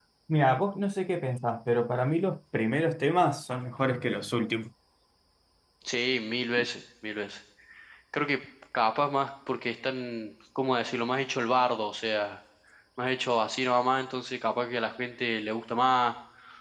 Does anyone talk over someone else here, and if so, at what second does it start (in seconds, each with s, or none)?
none